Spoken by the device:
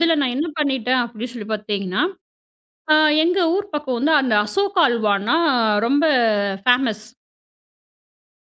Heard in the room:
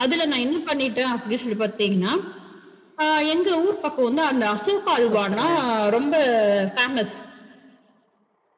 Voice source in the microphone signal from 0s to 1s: echo only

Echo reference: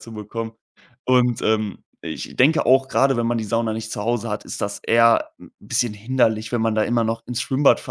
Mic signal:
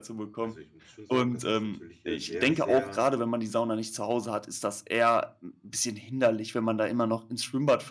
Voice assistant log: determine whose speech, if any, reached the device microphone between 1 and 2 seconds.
both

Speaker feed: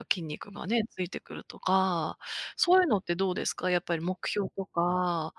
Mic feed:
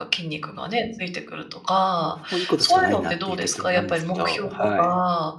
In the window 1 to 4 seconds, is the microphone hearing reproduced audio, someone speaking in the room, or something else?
both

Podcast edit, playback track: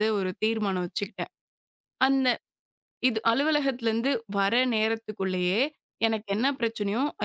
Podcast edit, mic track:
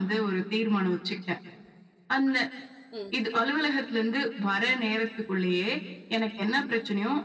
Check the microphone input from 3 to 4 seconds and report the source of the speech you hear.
both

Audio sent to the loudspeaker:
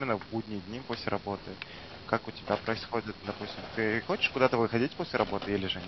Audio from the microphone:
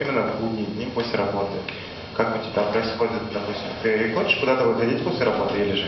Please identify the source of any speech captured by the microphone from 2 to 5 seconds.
echo only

